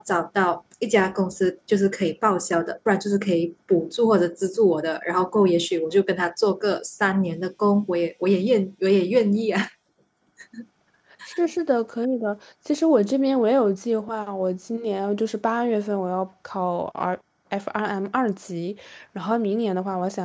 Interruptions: none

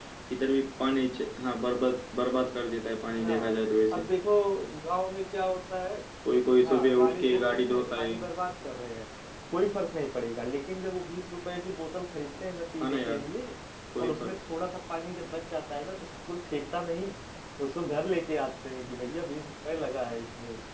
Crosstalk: present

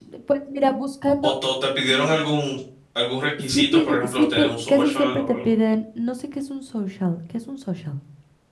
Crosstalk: present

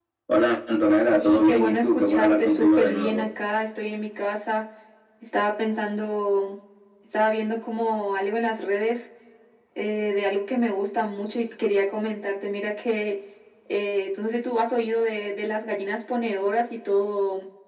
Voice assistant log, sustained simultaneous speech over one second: present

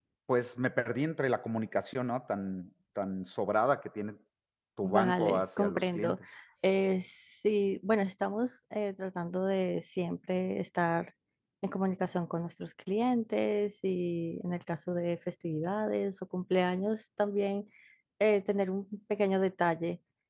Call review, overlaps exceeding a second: present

